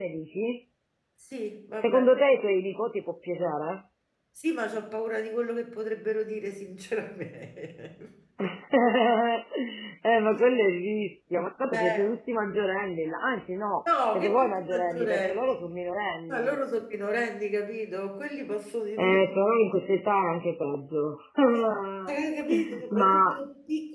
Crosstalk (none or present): present